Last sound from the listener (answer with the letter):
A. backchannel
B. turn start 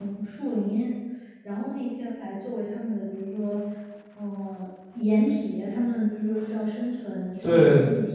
B